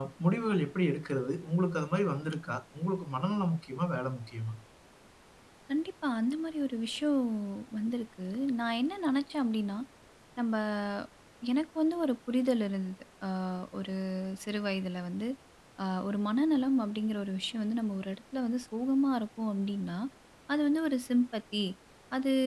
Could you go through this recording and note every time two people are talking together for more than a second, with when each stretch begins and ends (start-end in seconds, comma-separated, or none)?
none